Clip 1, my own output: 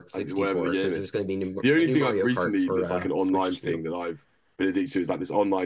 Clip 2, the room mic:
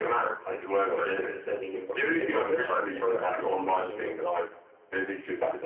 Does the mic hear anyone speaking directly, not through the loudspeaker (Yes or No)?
Yes